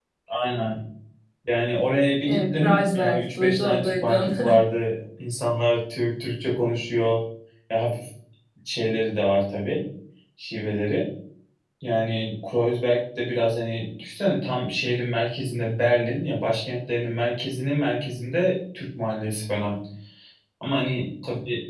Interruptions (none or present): present